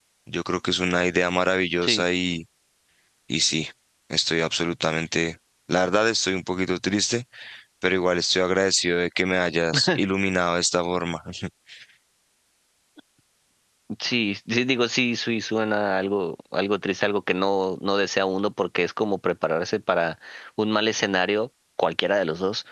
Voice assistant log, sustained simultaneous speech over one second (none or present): none